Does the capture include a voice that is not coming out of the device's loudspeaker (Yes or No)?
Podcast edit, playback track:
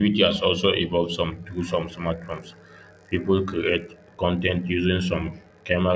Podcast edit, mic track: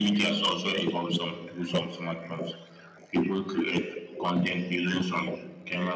No